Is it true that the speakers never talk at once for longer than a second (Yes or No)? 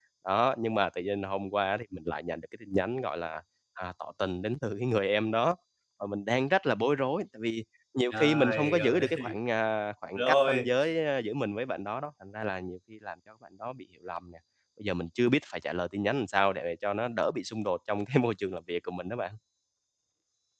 No